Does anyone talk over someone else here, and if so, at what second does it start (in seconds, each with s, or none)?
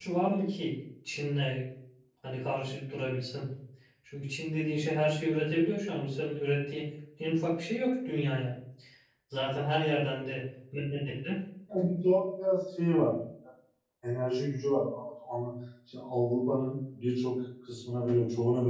none